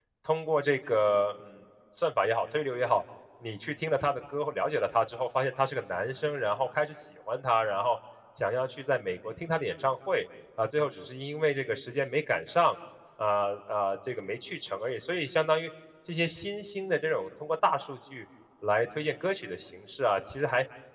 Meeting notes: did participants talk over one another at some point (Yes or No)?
No